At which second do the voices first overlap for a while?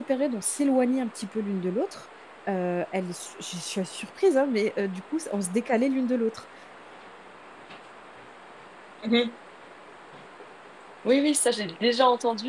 none

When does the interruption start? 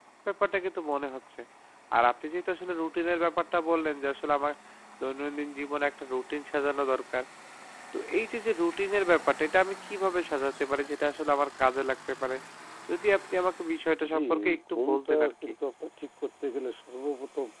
14.0 s

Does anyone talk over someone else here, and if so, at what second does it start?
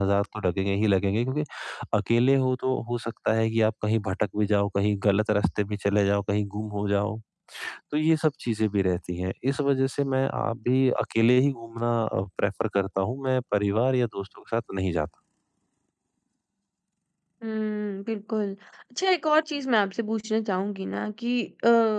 none

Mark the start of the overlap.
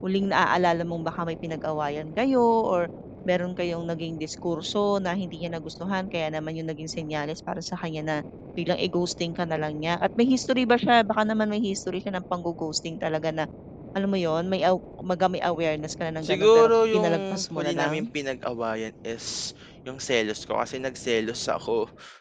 16.2 s

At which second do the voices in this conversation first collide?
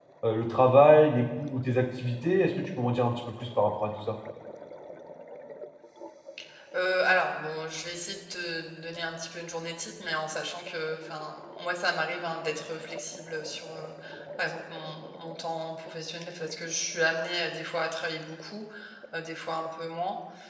none

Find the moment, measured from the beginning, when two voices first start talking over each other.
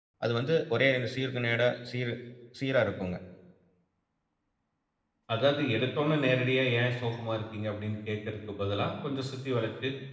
none

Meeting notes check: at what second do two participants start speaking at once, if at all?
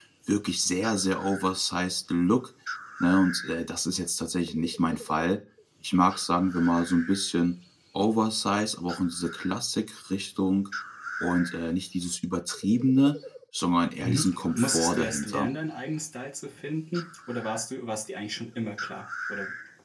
14.0 s

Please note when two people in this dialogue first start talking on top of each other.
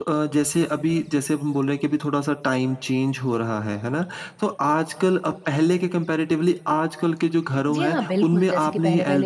7.7 s

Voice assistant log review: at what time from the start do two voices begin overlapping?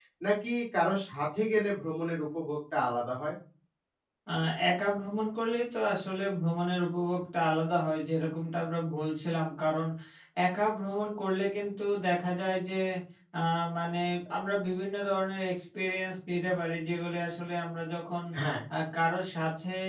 none

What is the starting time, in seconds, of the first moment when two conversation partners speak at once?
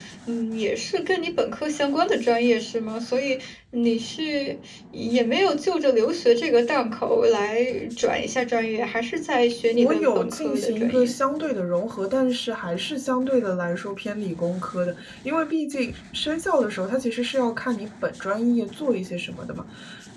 9.7 s

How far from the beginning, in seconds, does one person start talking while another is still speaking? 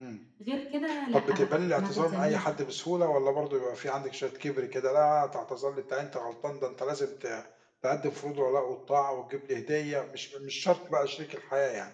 1.1 s

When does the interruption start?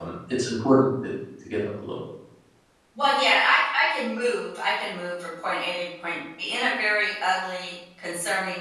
none

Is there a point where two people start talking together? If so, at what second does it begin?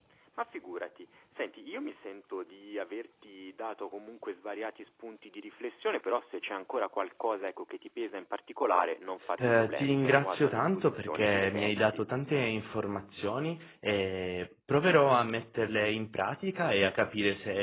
9.4 s

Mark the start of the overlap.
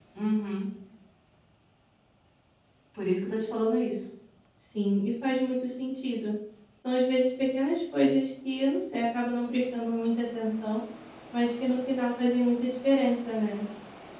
none

